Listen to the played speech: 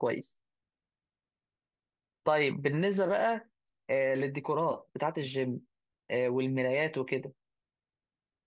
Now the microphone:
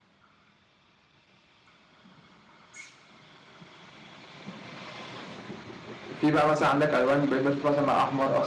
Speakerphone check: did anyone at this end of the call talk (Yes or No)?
Yes